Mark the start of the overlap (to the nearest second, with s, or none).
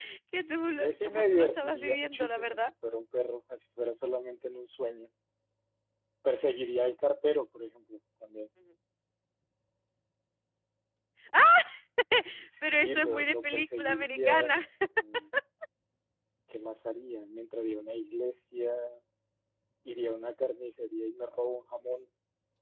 1 s